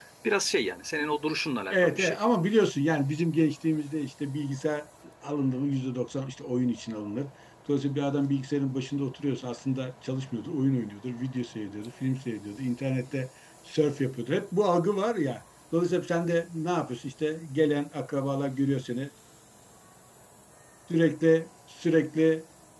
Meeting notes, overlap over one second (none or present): none